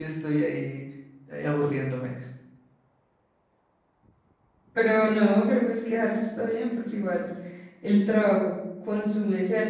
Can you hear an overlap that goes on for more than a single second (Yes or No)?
No